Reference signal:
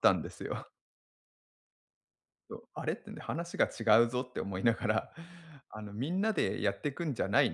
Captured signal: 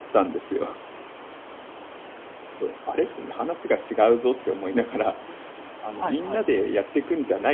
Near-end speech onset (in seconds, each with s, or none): 5.9 s